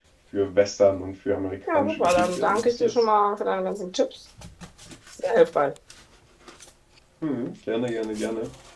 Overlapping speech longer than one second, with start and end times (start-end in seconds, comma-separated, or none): 1.7-3.0